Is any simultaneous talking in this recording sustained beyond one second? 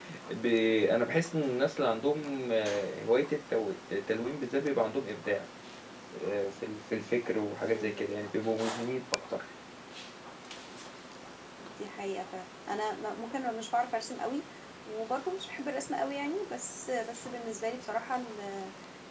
No

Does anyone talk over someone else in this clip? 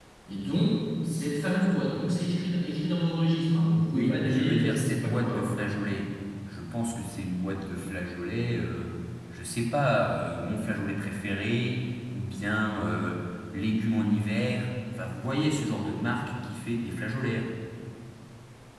Yes, from 3.9 s

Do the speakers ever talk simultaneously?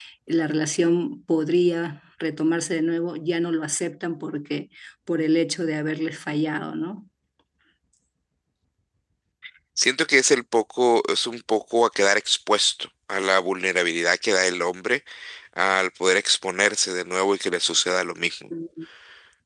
No

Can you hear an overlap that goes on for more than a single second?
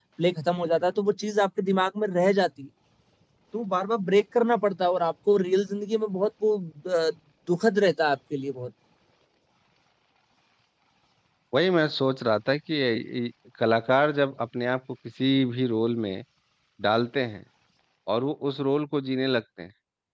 No

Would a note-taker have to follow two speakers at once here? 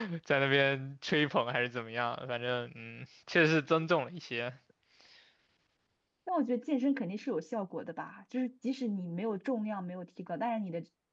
No

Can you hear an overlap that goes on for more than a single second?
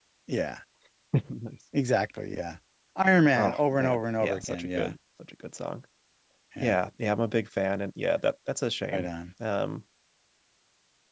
Yes, from 3.4 s

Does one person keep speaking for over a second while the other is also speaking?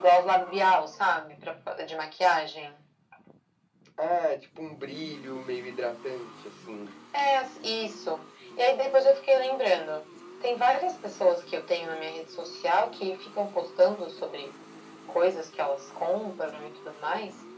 No

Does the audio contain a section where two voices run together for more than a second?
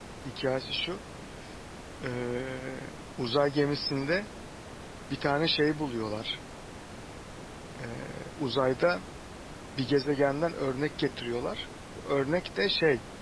No

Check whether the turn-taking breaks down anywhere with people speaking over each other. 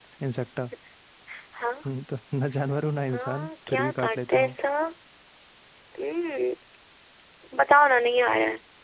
Yes, from 3.1 s

